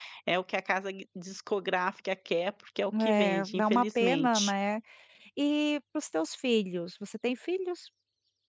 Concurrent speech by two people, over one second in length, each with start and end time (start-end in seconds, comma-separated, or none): 3.0-4.5